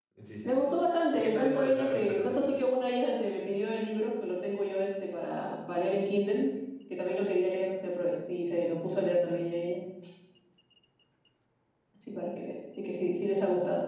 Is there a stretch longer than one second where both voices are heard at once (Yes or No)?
Yes